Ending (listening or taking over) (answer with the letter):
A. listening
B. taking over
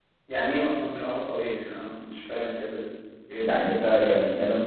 B